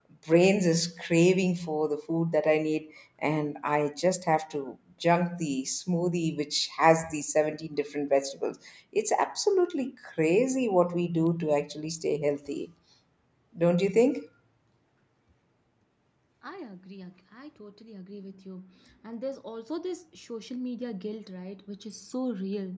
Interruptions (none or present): none